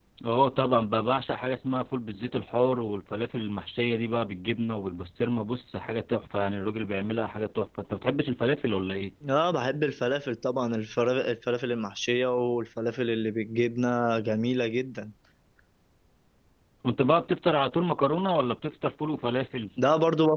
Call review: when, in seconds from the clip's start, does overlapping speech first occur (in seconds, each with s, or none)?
none